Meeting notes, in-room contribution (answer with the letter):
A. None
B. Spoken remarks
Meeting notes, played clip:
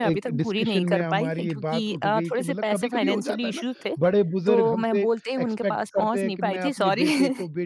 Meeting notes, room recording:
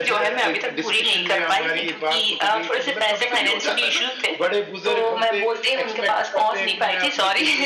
A